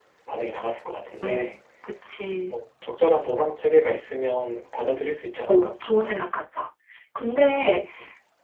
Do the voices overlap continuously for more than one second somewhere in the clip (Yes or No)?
No